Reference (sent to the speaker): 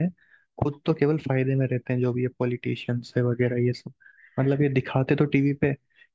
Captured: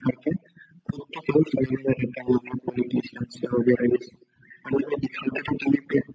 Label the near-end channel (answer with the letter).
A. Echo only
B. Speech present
A